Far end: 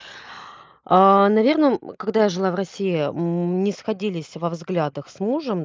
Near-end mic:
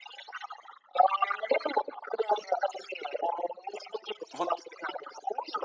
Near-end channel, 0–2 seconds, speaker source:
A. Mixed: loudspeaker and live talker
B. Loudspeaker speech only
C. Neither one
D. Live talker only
B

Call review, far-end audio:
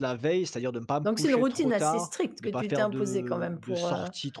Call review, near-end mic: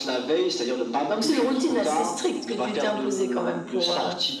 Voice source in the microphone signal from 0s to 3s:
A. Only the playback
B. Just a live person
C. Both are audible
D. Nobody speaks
A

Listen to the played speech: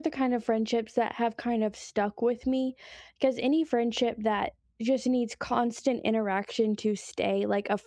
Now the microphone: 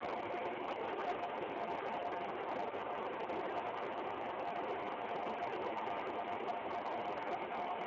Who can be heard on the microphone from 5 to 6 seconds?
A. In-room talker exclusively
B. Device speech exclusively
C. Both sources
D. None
D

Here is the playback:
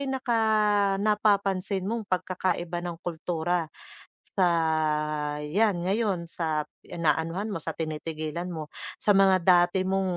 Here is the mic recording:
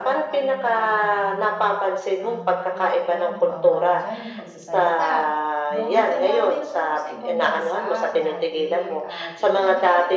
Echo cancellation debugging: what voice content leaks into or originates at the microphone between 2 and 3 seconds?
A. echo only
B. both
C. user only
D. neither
B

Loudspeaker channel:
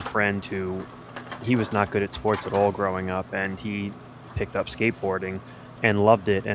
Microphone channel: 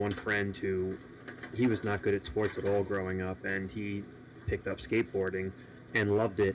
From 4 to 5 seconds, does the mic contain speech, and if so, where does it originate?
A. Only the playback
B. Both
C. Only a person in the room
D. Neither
A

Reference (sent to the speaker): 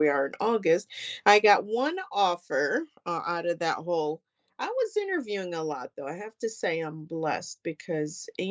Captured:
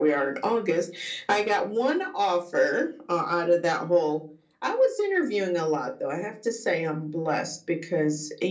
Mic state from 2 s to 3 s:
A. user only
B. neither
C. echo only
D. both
C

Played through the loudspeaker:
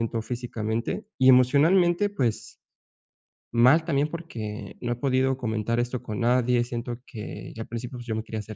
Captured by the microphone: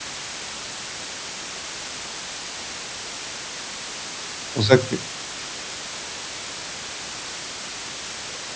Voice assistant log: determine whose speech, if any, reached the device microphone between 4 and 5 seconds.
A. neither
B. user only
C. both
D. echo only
B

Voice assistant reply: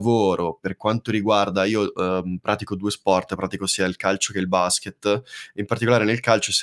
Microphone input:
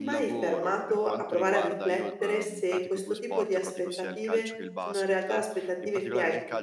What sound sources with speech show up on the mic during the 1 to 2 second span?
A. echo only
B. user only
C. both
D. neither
C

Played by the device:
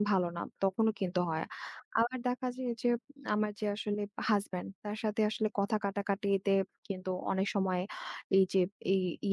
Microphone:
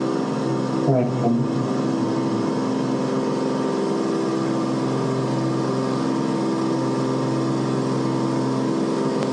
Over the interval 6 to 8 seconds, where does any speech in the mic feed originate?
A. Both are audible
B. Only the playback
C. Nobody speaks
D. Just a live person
C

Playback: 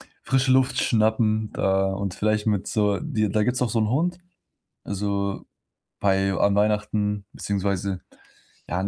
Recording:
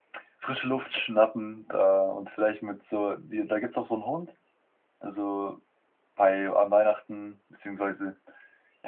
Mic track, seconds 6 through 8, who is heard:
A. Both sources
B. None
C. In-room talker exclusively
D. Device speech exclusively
D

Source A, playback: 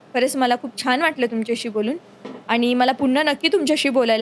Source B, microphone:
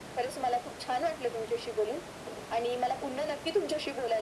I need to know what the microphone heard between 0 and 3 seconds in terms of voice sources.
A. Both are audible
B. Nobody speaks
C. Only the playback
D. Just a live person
C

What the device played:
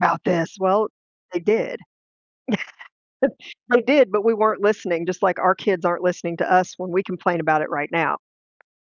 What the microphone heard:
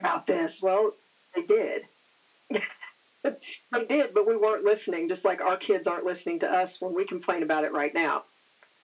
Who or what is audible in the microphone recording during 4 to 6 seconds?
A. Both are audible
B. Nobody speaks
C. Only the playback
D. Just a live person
C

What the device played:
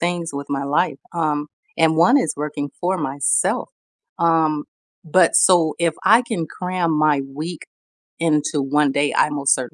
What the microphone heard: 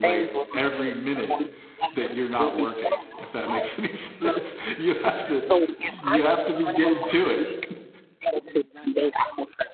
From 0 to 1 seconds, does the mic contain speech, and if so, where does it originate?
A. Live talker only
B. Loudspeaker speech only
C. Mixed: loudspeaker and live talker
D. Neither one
C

